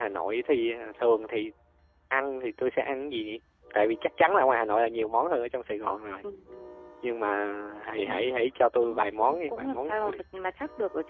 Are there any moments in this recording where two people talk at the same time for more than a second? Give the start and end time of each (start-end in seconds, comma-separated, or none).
8.8-10.2